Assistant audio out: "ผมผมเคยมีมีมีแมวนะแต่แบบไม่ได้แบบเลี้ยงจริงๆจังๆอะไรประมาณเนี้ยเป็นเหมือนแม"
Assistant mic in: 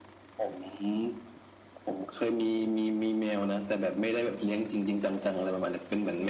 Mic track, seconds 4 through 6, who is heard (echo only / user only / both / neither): echo only